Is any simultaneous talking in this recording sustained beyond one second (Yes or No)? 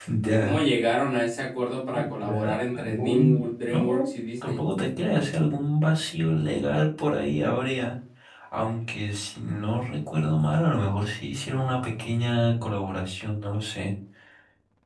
Yes